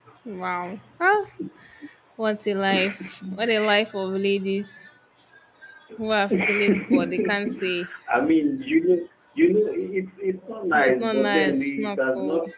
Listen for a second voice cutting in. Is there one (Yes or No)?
Yes